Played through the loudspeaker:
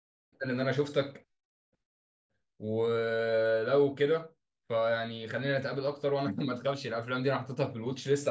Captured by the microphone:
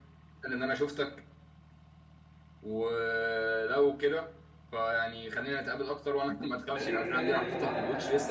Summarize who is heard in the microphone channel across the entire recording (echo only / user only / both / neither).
both